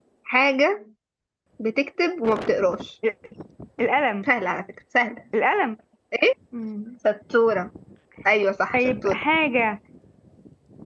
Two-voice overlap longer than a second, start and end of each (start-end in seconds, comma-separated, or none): none